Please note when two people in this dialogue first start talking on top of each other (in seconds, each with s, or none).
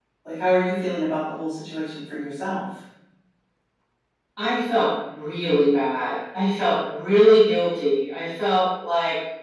none